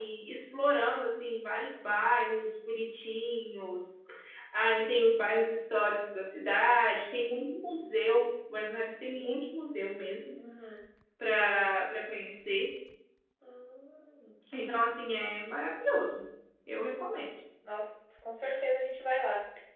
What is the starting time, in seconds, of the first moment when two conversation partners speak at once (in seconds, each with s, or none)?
none